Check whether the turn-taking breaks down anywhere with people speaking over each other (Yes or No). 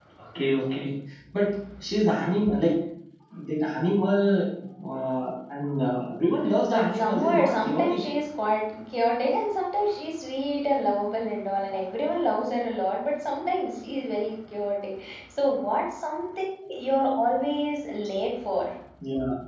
Yes